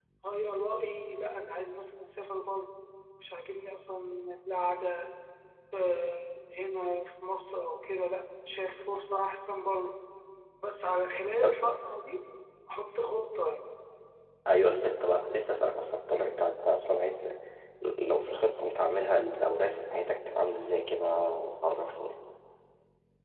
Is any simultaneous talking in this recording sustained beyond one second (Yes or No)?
No